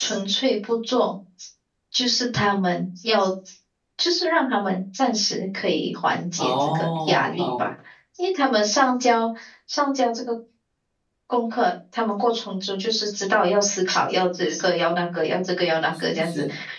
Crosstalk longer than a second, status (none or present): present